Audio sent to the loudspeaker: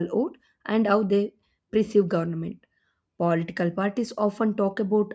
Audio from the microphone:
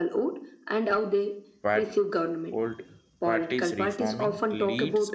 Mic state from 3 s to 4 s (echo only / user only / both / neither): both